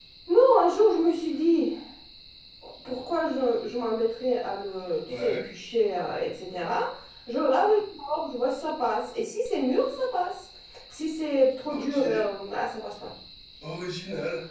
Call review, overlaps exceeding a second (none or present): none